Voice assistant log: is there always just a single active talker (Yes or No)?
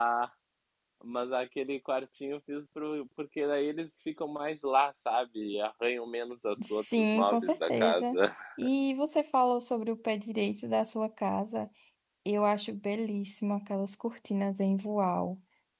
No